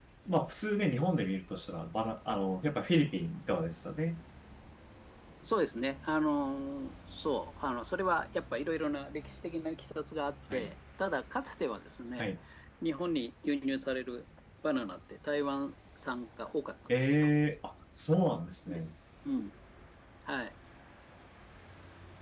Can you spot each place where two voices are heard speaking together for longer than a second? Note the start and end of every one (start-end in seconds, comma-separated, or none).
none